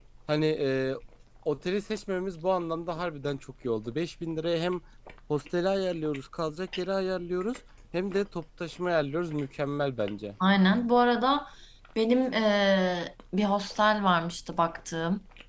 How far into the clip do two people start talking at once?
none

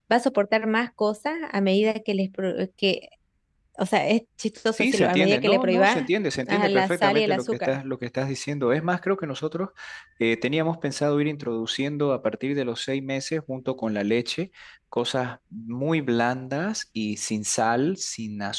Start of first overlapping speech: 5 s

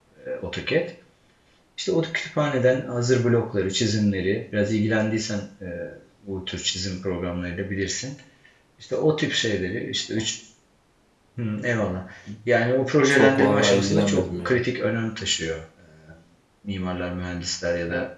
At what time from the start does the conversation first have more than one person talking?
13 s

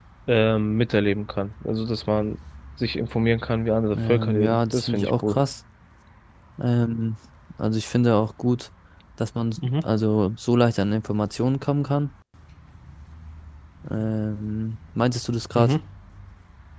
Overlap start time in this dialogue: 4 s

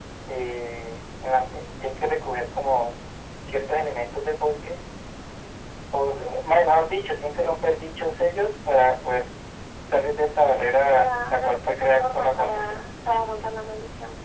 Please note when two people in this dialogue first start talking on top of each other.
11 s

